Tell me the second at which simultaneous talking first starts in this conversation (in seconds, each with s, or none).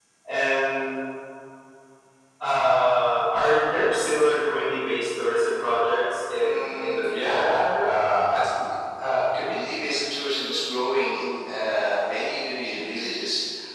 6.3 s